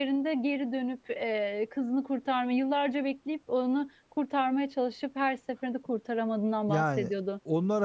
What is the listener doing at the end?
taking over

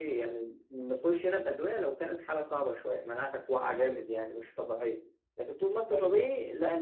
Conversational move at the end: listening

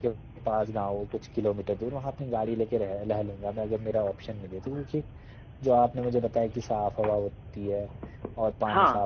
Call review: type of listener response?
listening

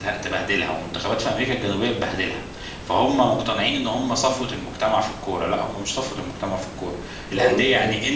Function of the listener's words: listening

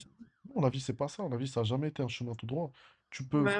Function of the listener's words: listening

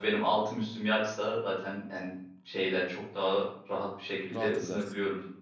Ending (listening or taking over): taking over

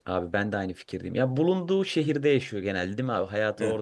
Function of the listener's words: taking over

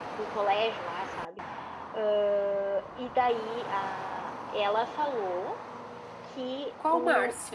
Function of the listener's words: listening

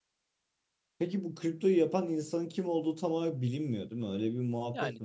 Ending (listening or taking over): taking over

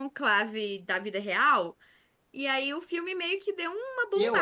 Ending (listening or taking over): taking over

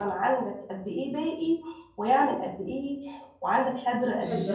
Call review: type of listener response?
taking over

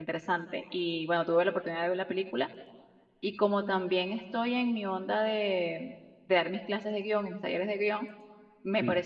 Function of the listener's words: listening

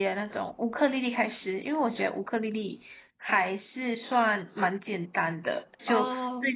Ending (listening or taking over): listening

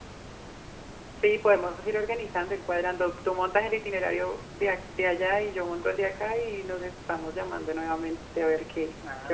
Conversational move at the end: taking over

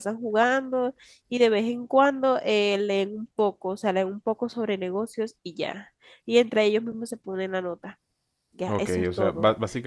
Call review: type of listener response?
taking over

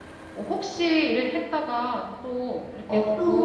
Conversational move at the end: taking over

